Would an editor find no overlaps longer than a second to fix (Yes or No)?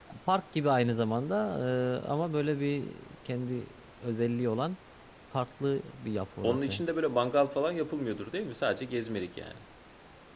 Yes